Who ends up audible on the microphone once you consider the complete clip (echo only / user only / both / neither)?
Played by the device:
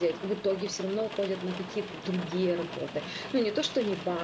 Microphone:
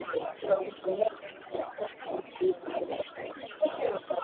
echo only